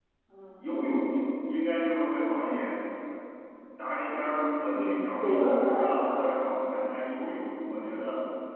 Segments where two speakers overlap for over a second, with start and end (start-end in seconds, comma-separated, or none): 4.7-6.2